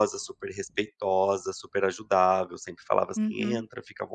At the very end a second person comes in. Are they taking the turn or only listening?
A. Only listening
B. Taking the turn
A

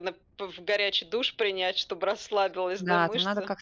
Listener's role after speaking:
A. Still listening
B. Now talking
B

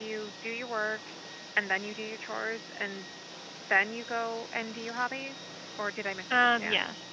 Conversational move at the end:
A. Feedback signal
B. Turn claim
B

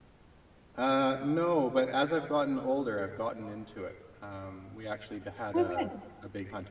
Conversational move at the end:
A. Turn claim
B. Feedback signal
B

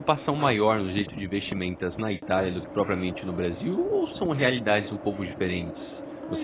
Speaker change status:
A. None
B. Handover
B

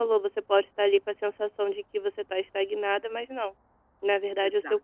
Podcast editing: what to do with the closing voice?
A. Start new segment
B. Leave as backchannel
B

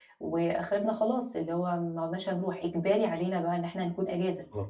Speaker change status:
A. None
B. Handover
A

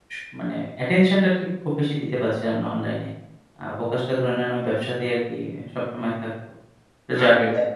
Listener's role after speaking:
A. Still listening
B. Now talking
A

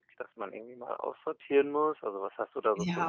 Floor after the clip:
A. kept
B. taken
B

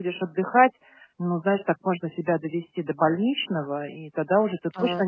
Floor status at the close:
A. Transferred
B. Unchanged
B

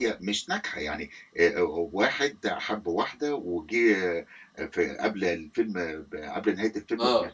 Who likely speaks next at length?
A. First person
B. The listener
A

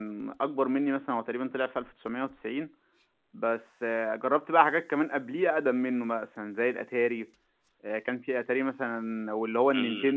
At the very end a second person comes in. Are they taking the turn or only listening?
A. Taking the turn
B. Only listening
B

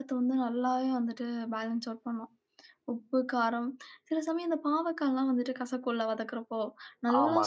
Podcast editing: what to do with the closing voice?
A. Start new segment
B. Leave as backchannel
B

